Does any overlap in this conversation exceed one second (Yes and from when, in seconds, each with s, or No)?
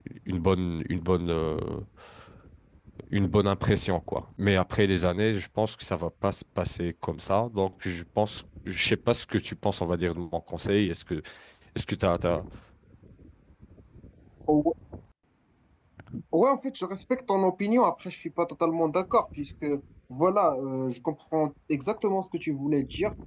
No